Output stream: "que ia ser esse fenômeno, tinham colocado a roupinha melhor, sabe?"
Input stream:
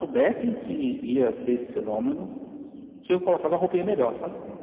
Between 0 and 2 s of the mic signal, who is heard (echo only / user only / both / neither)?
echo only